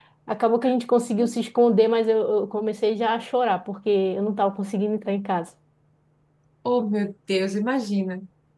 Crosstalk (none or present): none